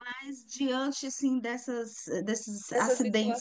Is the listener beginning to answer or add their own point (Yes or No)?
No